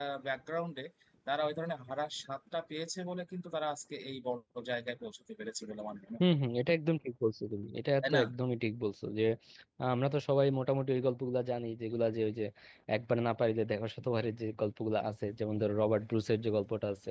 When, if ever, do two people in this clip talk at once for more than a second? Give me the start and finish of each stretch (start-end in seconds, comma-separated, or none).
none